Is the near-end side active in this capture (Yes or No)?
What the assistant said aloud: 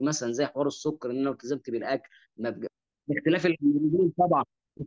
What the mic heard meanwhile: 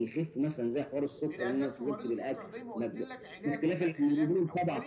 Yes